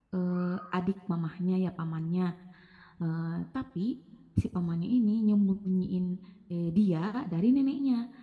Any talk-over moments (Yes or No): No